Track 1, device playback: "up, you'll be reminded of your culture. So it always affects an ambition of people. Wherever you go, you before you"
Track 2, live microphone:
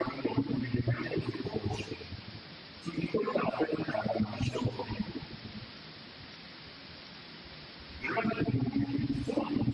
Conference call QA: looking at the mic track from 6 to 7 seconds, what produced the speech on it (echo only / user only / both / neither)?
neither